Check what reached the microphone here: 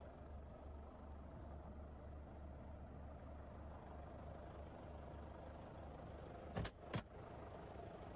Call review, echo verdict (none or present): none